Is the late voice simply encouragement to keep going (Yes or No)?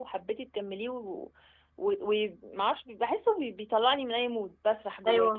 No